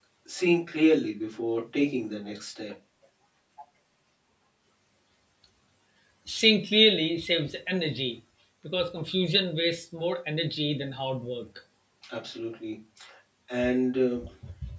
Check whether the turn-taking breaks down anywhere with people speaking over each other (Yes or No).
No